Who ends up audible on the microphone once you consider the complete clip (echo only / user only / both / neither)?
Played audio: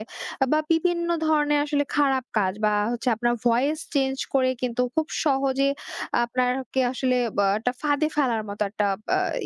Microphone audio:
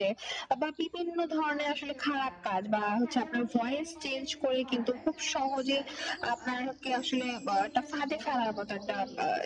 both